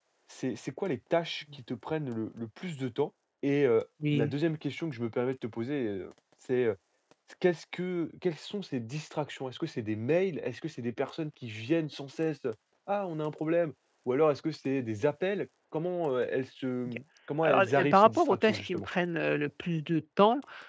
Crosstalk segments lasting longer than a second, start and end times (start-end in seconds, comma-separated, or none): 17.4-18.9